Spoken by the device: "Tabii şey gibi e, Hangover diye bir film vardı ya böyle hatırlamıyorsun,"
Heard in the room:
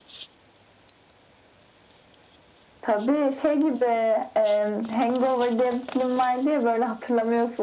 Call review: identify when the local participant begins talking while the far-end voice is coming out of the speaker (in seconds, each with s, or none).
none